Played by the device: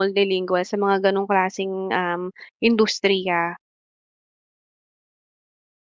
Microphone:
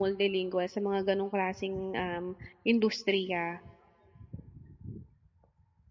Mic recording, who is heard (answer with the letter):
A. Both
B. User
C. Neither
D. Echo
D